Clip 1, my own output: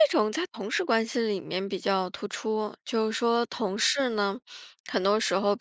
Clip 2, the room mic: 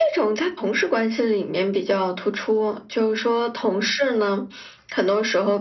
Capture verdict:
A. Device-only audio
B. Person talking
A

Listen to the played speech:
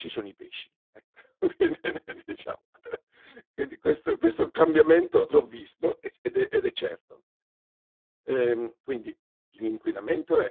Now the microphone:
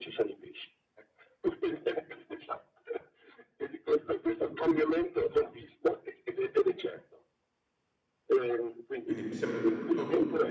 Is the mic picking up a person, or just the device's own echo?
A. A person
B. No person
A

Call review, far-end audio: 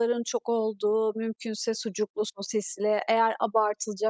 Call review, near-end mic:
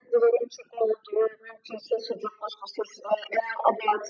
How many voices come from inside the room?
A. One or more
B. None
B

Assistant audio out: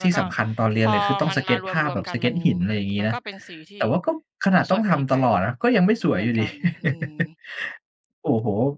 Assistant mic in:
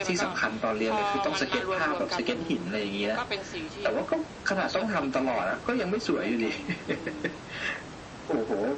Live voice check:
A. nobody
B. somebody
A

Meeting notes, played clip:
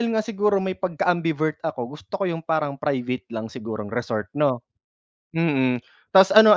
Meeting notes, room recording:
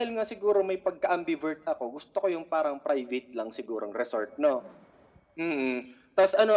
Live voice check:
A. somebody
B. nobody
B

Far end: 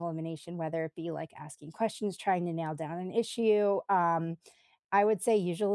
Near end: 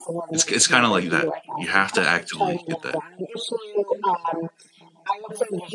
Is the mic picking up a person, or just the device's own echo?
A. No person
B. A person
B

